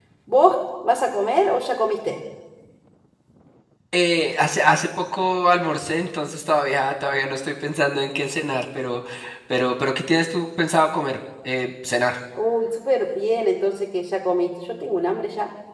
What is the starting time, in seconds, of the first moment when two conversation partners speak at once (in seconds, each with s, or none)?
none